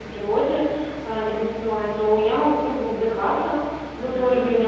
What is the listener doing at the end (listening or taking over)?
listening